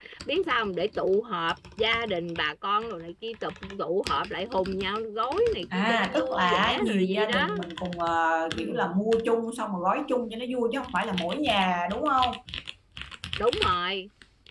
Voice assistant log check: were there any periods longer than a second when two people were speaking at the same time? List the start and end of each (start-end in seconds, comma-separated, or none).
5.7-7.5